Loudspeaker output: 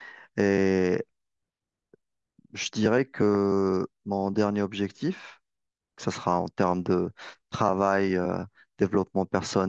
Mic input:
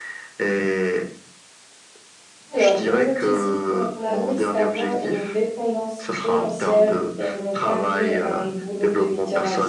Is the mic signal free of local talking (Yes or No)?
No